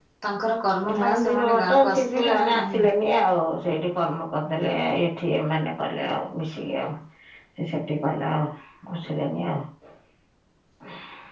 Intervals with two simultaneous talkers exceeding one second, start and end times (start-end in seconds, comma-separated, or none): 0.9-2.8